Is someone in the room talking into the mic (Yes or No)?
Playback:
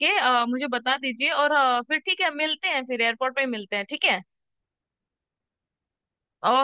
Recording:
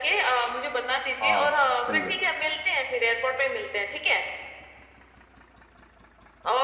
Yes